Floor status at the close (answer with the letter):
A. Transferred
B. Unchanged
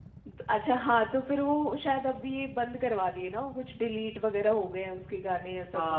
A